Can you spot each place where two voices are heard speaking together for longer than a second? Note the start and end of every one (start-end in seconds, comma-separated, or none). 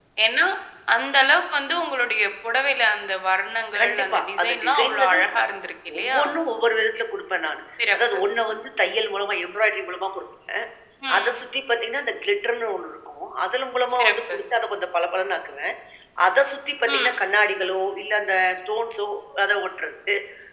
3.8-5.4